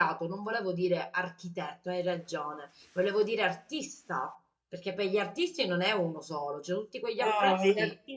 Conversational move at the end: taking over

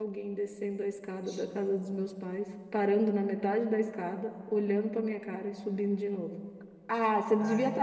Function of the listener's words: listening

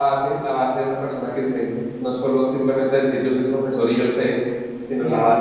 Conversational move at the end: listening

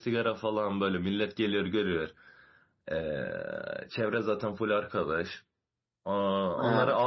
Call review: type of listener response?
listening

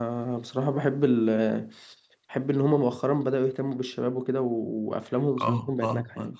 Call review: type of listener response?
taking over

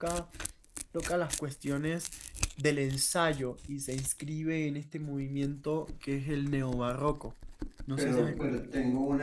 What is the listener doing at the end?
taking over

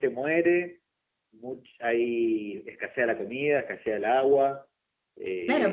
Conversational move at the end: taking over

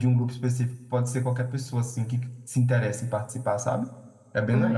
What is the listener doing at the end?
taking over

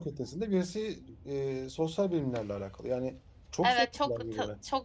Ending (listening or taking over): taking over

